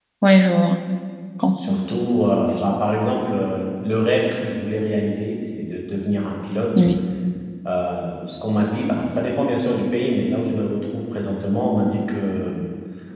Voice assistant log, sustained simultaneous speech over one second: none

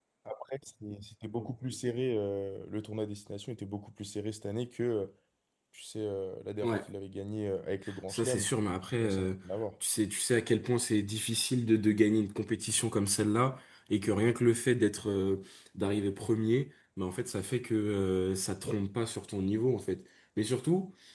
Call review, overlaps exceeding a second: none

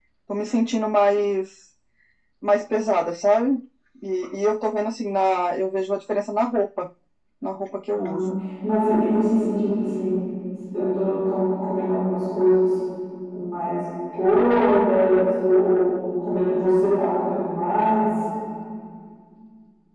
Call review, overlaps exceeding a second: none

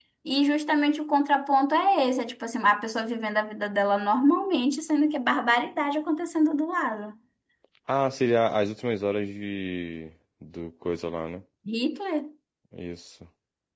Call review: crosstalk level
none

